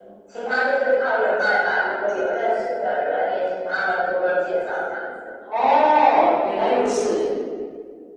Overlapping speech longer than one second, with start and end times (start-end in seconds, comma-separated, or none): none